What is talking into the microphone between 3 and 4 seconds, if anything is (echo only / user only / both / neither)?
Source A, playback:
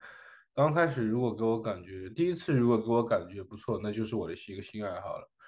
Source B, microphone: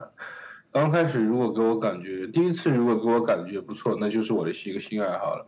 echo only